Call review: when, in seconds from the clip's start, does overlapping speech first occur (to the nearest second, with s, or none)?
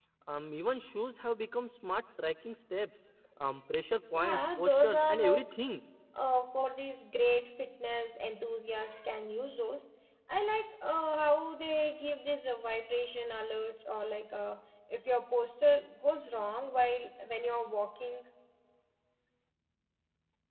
4 s